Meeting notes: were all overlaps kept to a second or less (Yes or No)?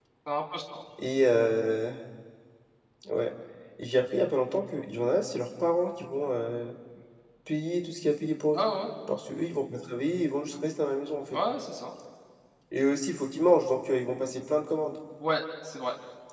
Yes